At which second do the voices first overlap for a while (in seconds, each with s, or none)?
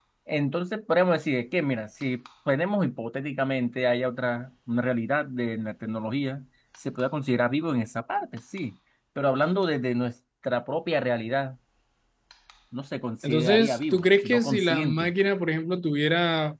13.2 s